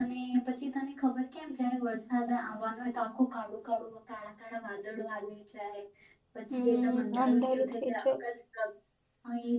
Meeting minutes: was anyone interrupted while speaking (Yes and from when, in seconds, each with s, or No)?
Yes, from 6.6 s